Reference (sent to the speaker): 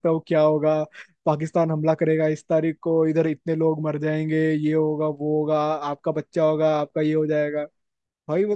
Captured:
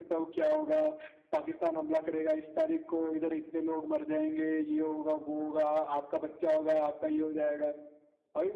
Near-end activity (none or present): none